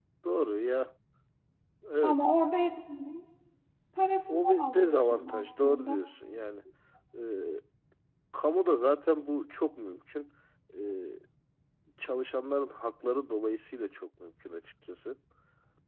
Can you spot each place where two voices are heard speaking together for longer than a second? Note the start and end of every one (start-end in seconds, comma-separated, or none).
4.3-6.0